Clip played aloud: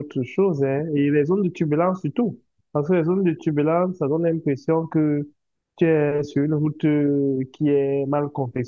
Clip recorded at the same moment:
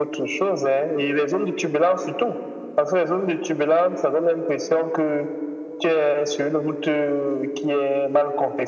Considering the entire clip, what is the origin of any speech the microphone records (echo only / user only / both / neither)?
echo only